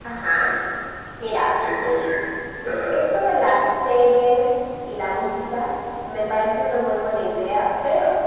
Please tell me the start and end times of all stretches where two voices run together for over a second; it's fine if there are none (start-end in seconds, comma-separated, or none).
none